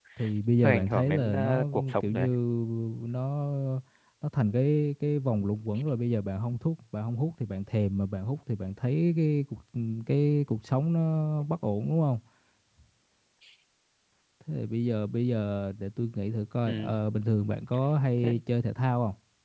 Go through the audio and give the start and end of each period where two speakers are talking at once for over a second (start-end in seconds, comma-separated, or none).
0.6-2.3